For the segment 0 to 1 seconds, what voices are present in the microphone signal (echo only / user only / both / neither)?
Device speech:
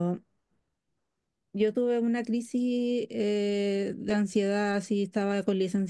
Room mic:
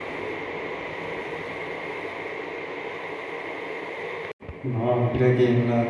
neither